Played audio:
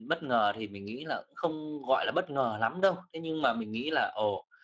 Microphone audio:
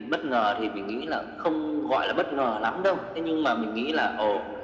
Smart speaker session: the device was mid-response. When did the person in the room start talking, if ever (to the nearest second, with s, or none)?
none